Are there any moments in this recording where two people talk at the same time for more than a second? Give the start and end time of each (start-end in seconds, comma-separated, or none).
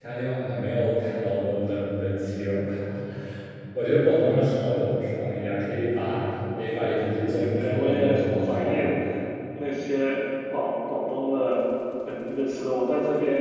7.2-8.9